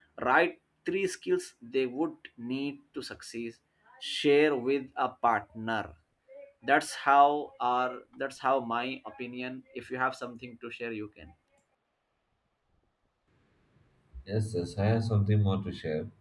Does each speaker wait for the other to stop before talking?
Yes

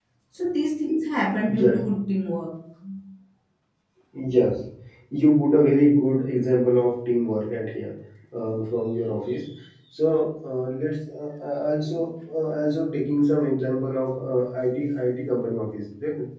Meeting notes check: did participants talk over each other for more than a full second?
No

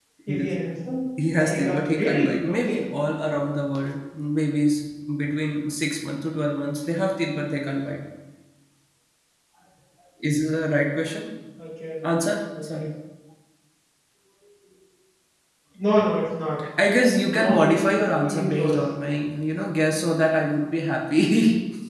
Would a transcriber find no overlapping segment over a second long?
No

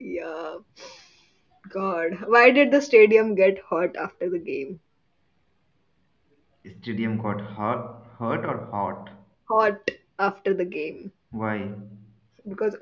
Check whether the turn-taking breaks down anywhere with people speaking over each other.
No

